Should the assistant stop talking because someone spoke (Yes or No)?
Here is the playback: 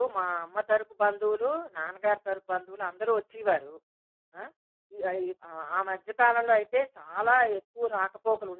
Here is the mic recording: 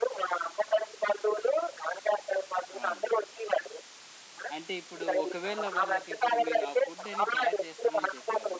Yes